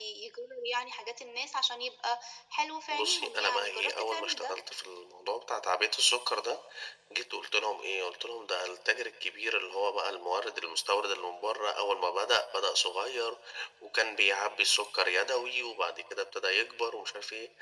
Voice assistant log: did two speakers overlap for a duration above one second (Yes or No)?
Yes